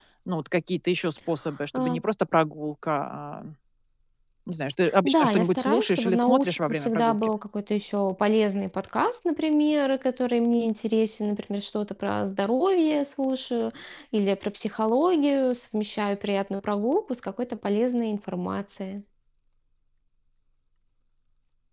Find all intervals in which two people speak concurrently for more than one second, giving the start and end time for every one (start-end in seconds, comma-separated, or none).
5.0-7.2